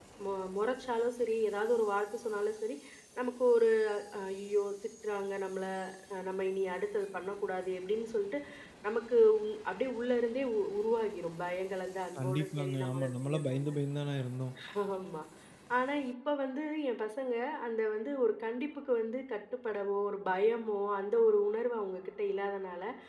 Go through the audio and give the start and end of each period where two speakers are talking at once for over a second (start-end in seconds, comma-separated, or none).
12.2-13.7